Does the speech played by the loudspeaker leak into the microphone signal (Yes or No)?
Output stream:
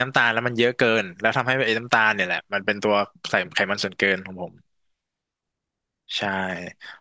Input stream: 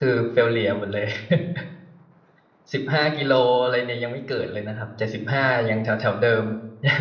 No